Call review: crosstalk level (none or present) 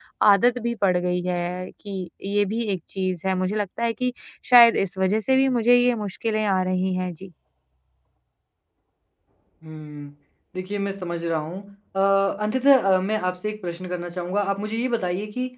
none